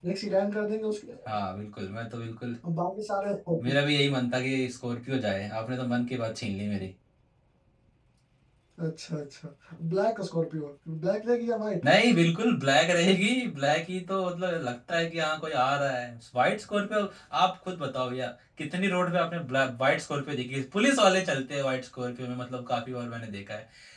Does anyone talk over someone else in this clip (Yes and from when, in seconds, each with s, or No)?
No